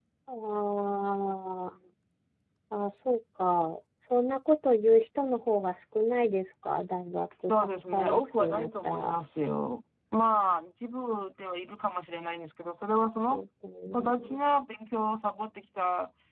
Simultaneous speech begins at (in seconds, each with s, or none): 7.5 s